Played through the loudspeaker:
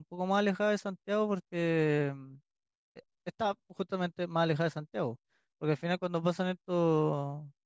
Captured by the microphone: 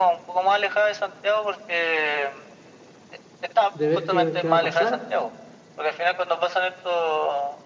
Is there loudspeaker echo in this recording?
Yes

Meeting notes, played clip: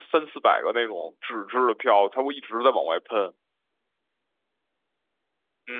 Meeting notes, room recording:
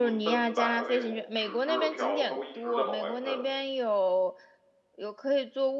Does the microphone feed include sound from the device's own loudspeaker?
Yes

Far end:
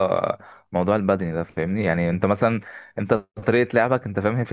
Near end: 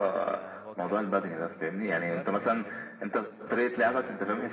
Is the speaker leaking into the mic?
Yes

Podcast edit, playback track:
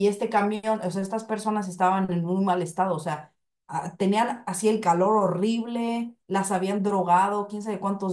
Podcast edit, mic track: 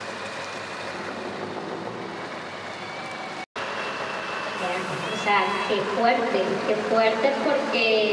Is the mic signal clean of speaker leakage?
Yes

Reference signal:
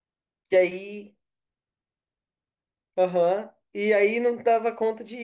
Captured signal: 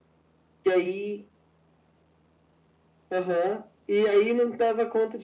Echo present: Yes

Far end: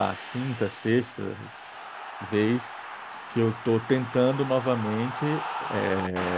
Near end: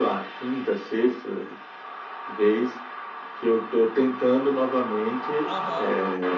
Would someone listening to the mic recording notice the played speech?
Yes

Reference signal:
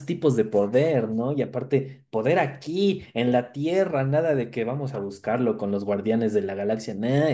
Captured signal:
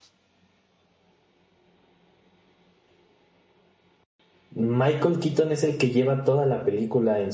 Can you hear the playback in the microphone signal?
No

